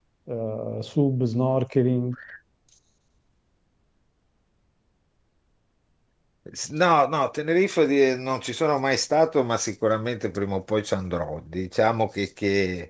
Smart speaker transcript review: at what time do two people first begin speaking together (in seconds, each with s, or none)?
none